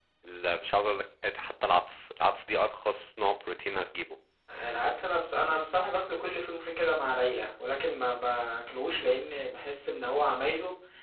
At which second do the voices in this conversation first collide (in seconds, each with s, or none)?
none